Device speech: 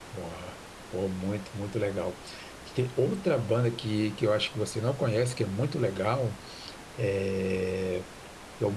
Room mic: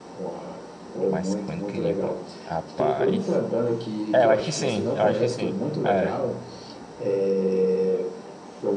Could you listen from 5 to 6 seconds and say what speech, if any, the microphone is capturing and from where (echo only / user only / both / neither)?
both